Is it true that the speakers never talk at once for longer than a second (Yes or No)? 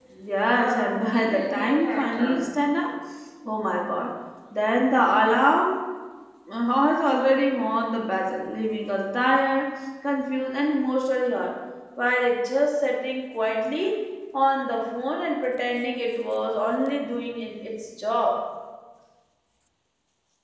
No